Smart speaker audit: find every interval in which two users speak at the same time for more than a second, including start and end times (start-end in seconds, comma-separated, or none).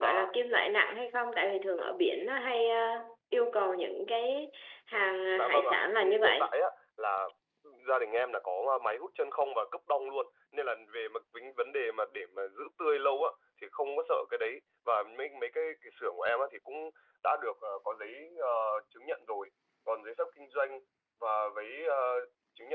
5.3-6.5